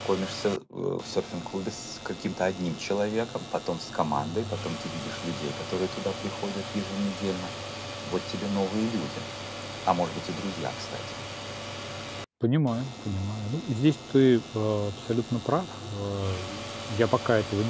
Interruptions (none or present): none